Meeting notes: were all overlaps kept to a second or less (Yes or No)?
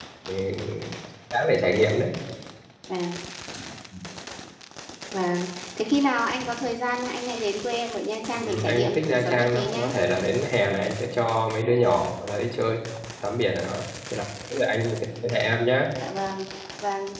No